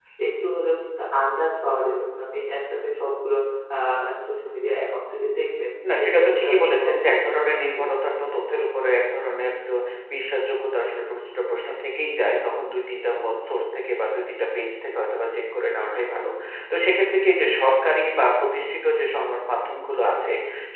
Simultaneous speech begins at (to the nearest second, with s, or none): 6 s